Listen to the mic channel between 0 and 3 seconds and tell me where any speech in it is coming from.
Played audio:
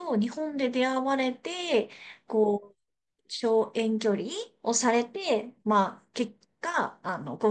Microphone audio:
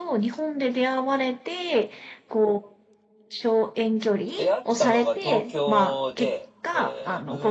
echo only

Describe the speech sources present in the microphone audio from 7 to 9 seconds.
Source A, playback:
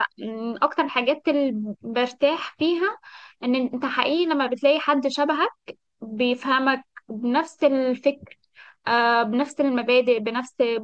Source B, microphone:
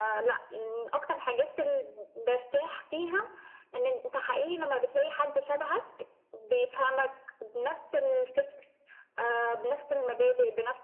echo only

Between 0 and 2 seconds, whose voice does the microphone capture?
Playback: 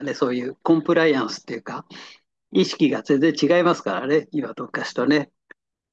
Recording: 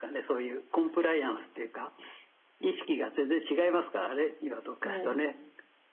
echo only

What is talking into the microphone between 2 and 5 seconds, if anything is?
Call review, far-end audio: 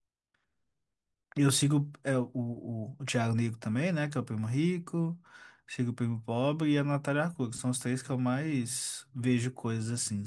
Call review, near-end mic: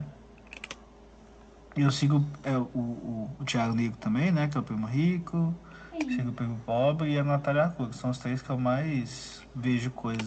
echo only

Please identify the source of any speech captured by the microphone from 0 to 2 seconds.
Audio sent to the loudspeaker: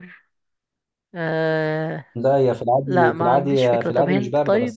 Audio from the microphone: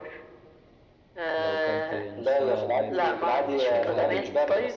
both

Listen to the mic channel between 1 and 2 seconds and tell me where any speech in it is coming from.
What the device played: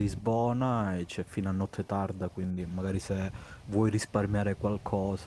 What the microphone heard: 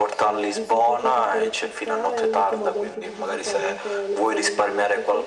both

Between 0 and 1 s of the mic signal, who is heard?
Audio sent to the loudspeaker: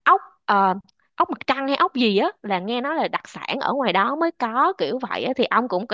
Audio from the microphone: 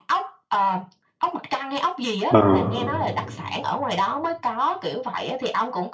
echo only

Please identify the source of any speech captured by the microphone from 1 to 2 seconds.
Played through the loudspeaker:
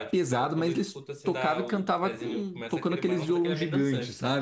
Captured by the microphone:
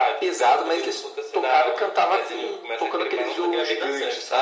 echo only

